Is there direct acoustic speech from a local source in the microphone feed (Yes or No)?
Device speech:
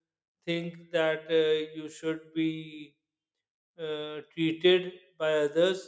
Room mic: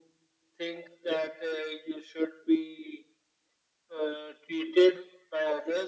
No